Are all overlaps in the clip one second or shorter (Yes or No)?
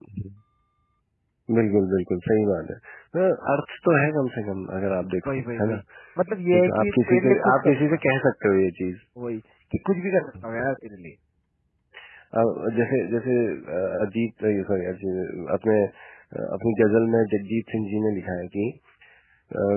No